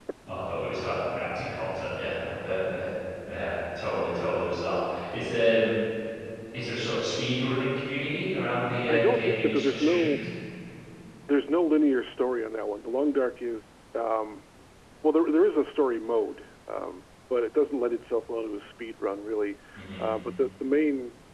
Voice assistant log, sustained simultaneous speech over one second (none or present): present